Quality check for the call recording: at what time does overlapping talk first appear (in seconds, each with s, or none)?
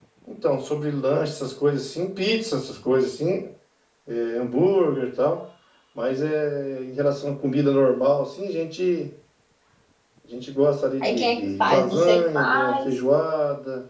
11.0 s